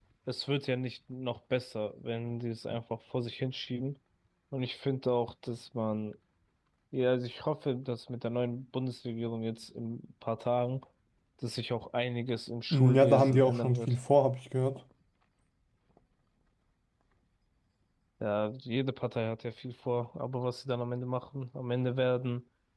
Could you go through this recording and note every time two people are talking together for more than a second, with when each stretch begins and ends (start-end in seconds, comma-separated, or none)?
12.7-13.9